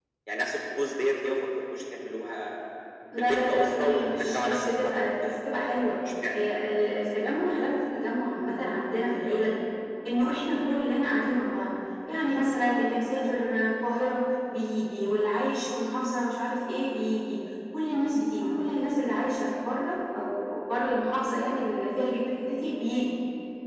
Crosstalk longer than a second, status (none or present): present